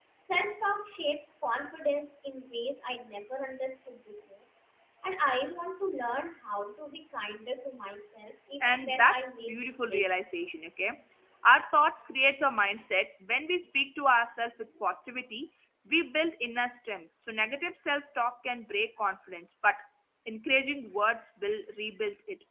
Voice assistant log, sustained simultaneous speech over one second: present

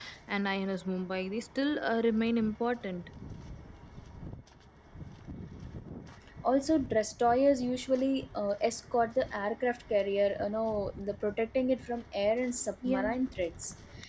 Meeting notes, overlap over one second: none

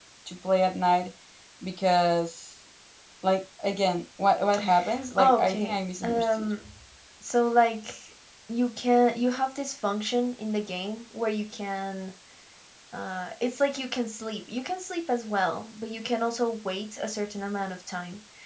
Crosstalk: present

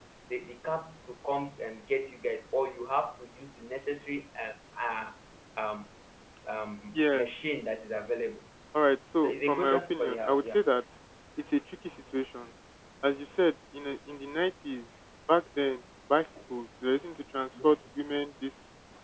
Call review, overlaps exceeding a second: present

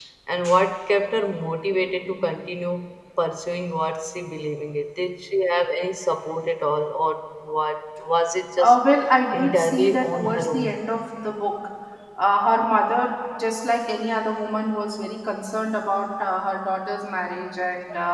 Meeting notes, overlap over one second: present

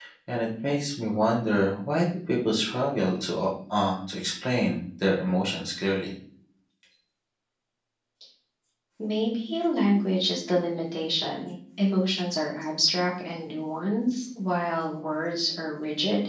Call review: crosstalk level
none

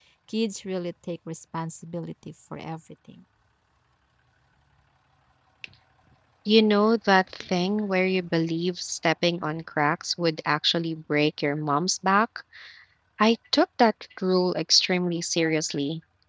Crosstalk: none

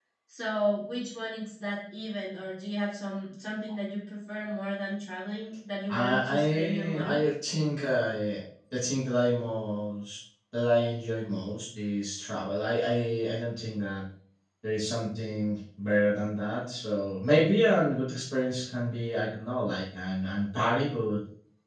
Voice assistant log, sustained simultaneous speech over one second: present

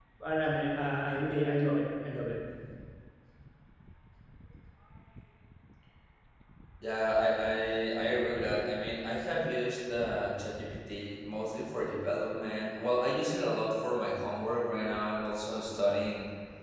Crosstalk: none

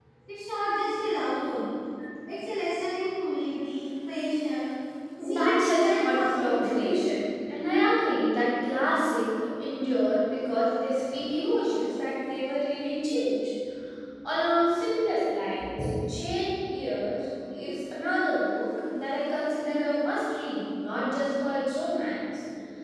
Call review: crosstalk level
present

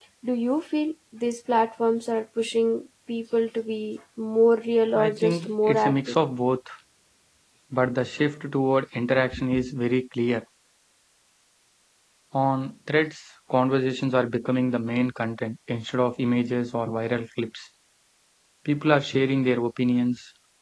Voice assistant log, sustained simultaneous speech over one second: present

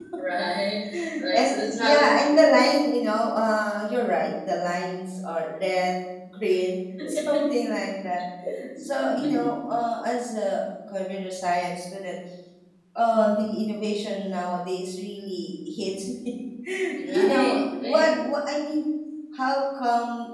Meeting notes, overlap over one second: present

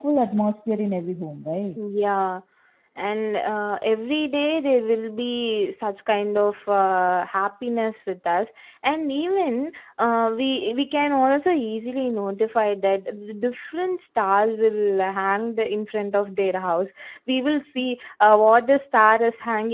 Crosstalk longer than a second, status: none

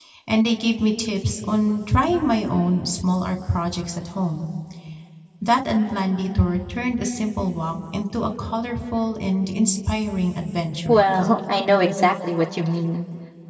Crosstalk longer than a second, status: none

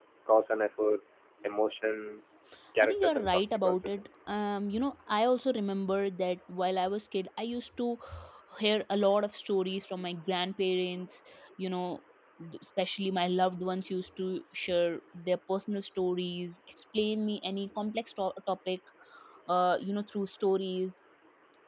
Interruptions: present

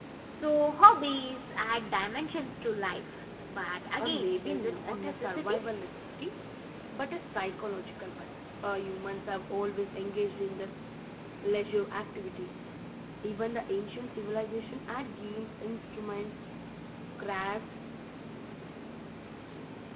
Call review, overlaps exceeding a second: present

